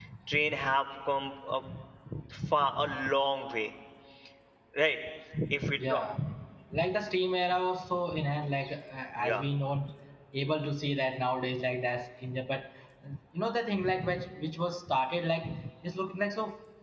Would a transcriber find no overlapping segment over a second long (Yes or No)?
Yes